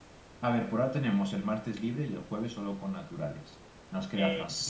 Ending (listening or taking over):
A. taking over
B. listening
A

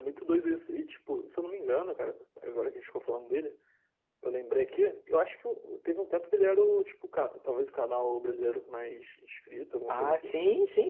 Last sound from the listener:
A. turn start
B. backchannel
A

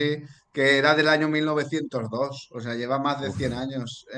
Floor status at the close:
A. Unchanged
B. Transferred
A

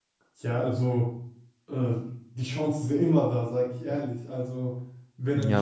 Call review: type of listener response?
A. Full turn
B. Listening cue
A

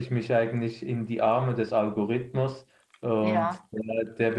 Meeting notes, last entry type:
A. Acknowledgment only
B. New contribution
A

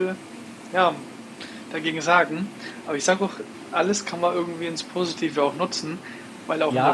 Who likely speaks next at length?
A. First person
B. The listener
B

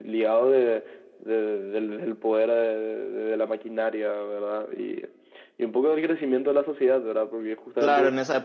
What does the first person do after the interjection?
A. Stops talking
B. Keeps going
A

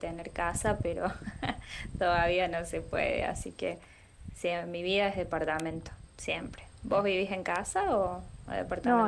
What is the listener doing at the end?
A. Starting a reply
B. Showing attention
A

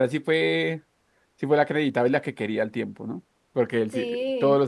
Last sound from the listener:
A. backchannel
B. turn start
A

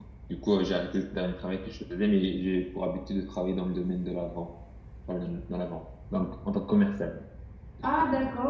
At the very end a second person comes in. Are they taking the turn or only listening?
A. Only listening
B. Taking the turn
B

